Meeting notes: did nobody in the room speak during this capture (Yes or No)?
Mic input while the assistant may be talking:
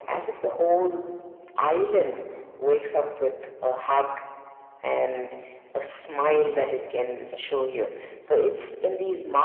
Yes